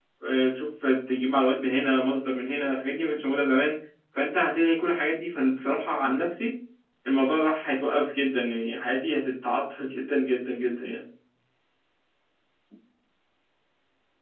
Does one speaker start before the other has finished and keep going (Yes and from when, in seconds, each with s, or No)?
No